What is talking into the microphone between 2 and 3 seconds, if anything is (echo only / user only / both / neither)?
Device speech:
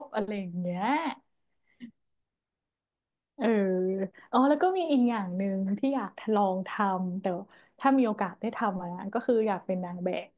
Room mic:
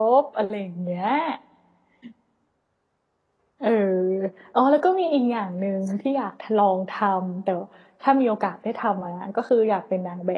neither